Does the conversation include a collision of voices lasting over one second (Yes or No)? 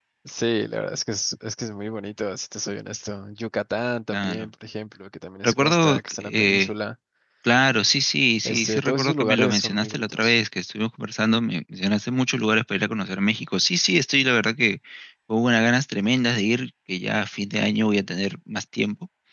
Yes